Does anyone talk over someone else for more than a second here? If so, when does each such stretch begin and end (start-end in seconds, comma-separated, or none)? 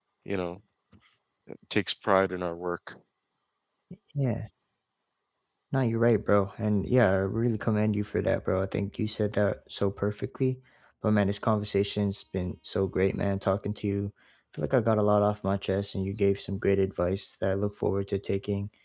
none